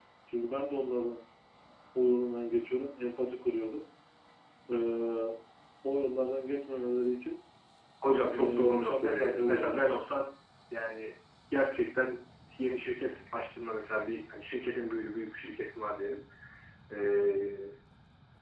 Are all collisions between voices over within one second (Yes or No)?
No